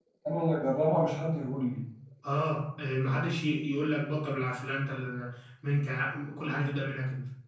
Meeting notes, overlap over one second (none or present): none